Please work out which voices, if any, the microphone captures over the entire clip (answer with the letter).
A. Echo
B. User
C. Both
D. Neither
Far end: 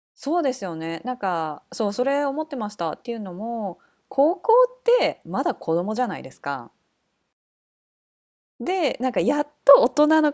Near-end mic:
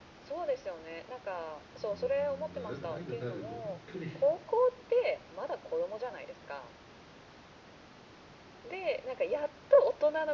C